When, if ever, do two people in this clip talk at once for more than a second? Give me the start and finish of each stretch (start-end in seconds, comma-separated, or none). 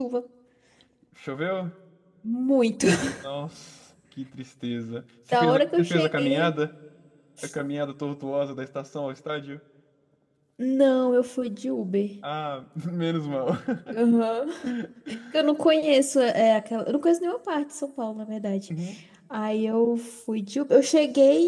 5.3-6.6